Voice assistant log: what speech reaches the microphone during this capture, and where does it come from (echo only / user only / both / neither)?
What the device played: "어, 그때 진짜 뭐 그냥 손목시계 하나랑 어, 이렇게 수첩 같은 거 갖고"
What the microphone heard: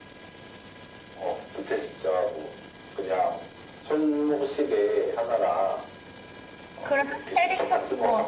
both